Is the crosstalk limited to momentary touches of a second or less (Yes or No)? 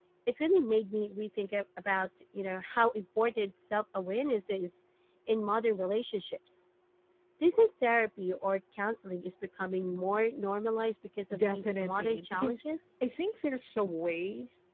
No